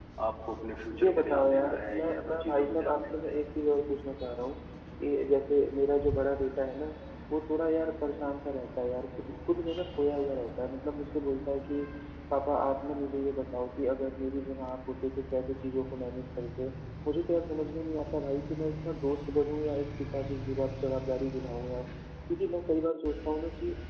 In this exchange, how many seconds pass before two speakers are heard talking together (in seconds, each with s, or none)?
1.0 s